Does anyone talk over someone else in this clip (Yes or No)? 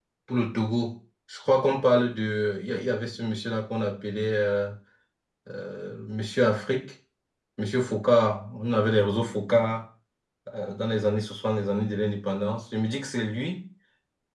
No